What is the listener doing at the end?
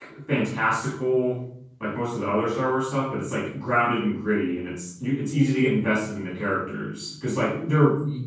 listening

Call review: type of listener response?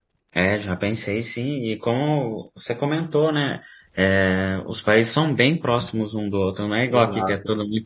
listening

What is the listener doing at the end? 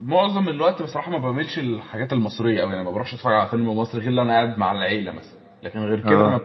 listening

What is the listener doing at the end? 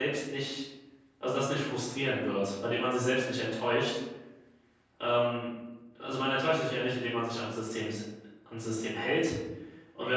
listening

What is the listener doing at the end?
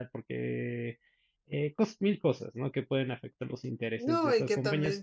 taking over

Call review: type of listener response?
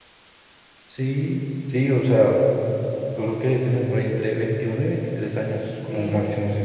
taking over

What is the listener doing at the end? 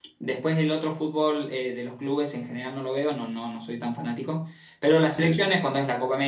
listening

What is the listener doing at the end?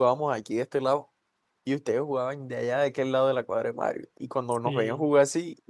listening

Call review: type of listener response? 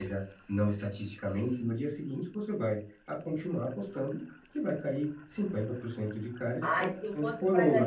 taking over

